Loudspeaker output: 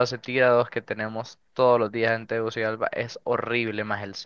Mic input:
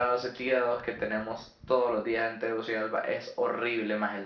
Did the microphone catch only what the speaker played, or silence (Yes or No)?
Yes